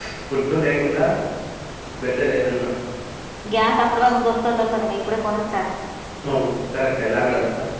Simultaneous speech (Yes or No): No